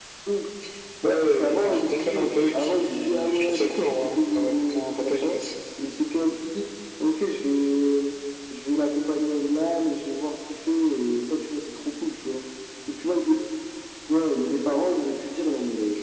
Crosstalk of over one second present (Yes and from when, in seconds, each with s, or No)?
Yes, from 1.0 s